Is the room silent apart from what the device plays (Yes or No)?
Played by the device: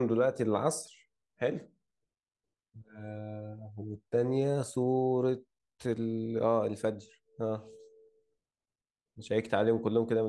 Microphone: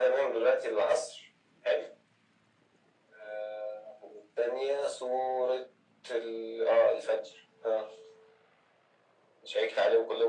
Yes